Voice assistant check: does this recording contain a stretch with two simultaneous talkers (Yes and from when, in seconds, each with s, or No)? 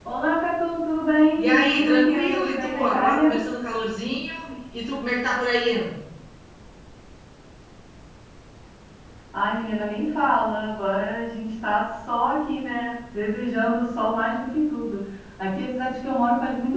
Yes, from 1.4 s